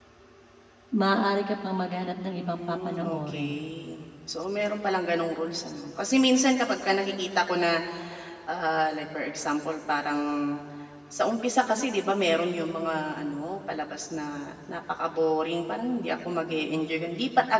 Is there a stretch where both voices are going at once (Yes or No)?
Yes